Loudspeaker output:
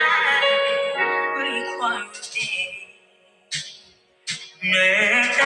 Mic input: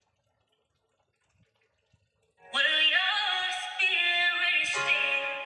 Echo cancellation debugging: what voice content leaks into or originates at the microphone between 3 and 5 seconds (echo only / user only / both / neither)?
user only